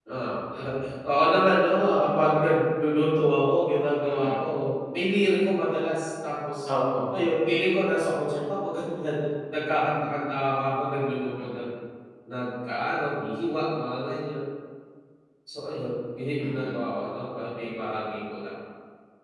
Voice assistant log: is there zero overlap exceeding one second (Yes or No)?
Yes